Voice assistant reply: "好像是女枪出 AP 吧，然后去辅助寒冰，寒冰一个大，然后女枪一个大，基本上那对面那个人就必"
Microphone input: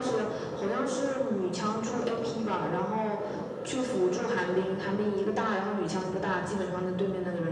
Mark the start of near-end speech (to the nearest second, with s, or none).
none